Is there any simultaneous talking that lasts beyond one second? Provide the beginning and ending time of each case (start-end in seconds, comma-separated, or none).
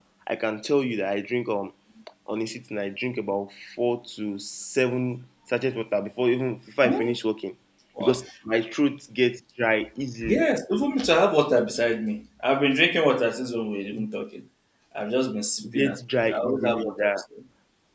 15.7-17.2